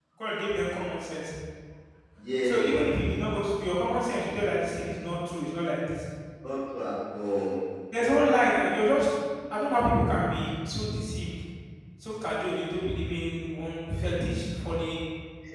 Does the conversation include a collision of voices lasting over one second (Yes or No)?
No